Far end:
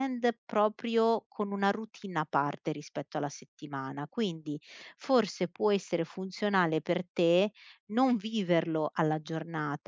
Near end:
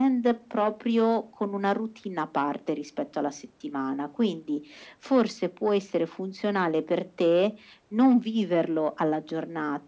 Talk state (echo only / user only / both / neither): echo only